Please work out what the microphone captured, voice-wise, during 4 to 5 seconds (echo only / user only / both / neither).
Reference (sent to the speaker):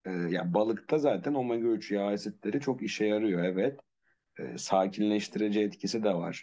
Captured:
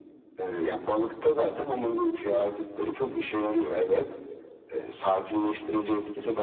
echo only